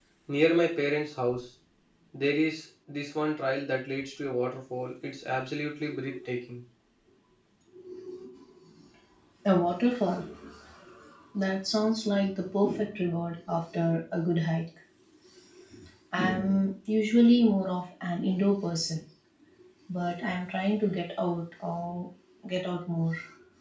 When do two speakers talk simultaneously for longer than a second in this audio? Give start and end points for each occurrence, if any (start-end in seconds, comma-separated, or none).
none